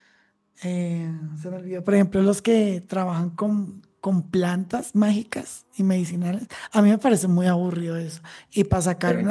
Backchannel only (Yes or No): Yes